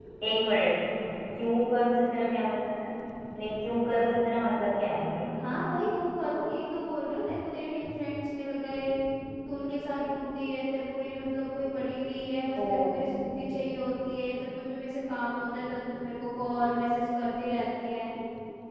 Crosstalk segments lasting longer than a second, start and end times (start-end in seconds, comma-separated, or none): none